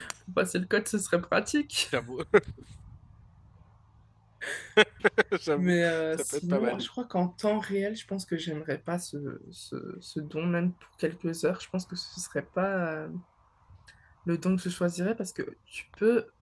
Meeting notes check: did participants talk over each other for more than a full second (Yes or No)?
Yes